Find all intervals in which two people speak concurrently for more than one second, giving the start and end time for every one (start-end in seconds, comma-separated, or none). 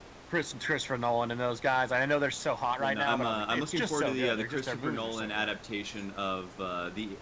2.8-5.5